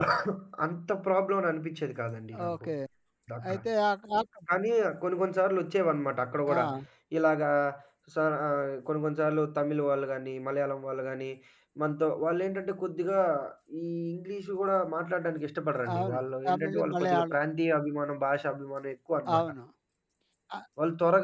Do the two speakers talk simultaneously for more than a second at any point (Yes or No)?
Yes